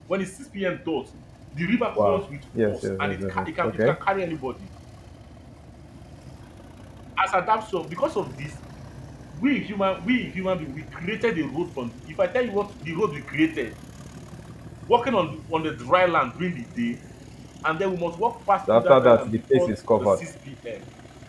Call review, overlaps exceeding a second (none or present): present